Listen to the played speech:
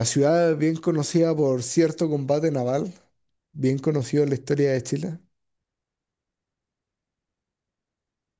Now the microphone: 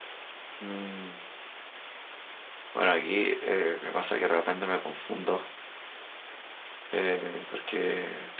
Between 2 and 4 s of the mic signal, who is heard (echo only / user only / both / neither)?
user only